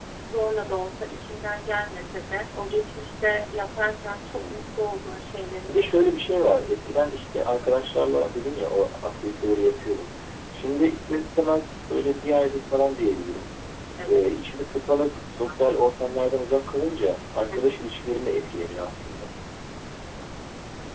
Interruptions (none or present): present